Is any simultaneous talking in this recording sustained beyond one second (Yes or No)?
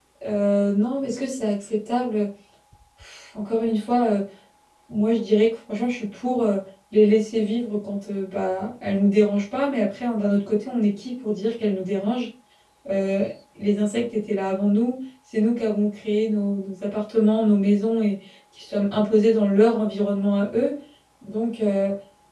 No